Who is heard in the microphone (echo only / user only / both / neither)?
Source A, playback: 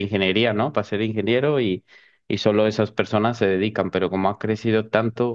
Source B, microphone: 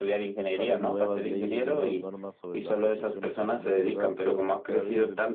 both